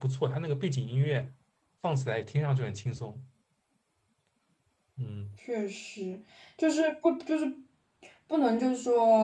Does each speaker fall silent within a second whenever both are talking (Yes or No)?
Yes